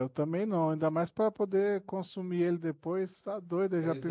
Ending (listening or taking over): taking over